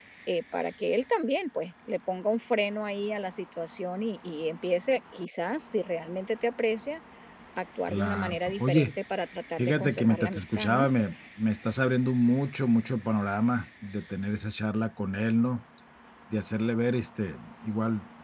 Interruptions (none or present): present